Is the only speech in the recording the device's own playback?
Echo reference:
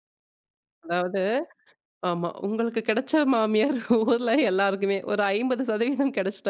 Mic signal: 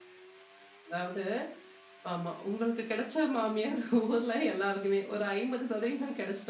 Yes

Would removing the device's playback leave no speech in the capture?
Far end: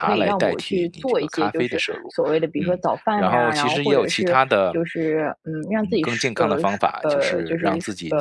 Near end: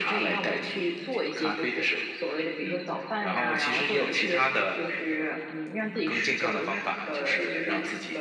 Yes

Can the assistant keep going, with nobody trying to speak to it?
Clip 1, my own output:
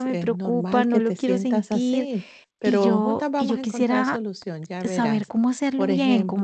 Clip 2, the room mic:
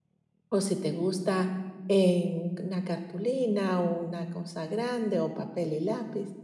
No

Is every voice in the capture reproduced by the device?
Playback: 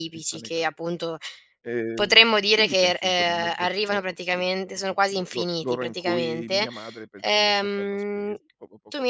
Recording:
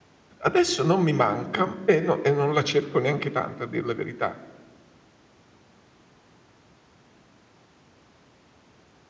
No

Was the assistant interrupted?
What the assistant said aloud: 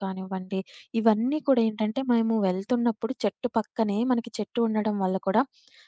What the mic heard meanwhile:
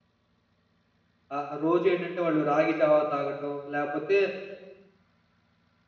Yes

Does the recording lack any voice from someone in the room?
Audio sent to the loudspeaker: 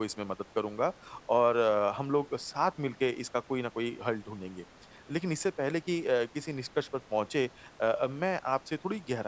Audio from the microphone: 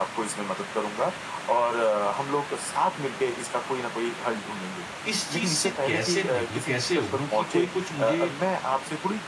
No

